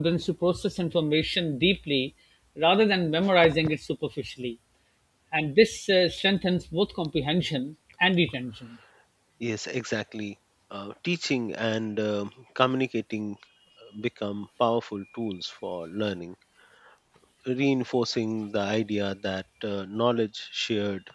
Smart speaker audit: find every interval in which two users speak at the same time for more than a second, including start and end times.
none

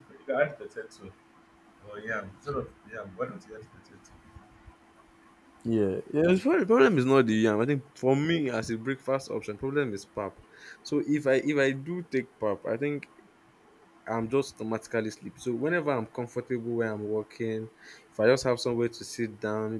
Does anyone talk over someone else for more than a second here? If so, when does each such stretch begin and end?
none

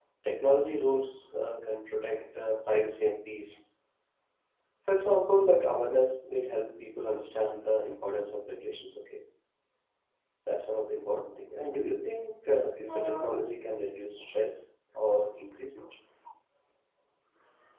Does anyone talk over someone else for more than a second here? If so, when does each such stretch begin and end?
none

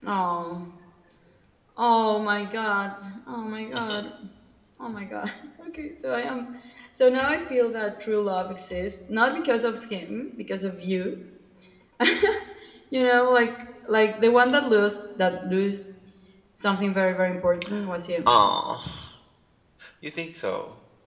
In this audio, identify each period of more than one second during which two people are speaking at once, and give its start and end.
none

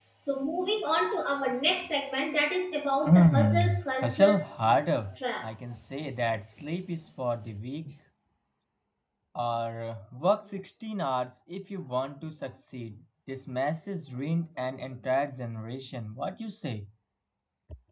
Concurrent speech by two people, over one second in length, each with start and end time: 3.0-4.4

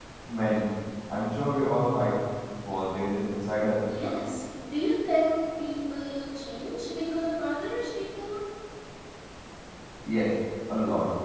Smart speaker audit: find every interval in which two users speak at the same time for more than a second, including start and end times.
none

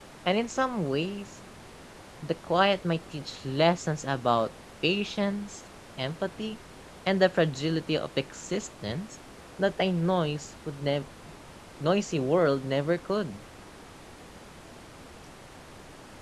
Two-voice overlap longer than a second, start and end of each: none

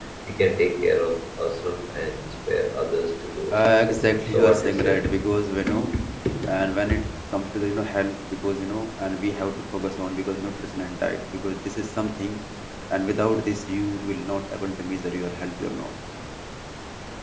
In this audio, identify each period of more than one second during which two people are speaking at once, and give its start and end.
3.5-5.0

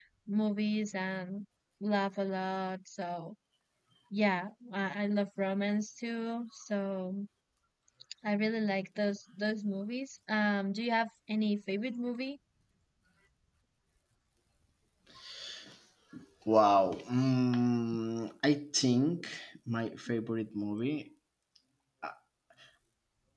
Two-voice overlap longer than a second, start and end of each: none

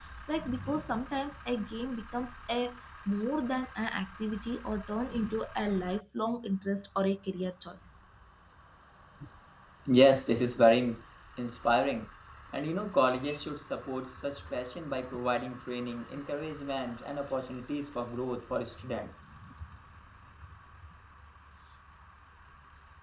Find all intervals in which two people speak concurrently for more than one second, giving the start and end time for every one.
none

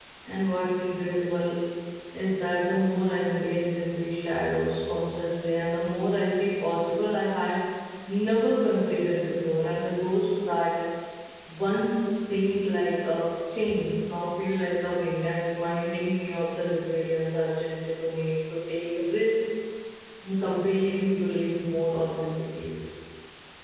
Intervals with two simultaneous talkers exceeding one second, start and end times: none

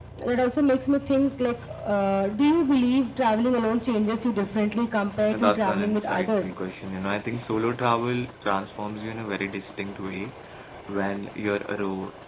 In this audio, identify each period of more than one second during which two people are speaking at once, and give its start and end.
5.3-6.5

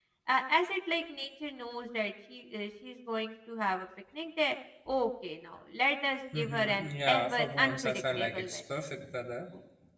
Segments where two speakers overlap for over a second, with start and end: 6.3-8.6

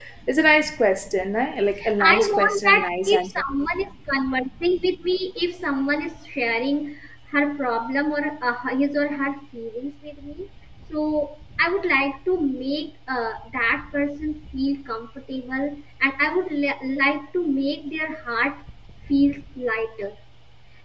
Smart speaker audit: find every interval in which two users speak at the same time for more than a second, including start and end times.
2.0-3.4

